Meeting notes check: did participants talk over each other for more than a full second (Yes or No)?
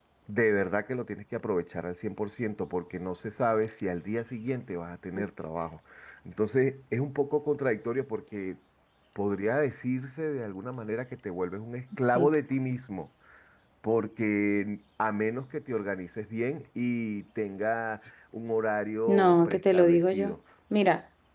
Yes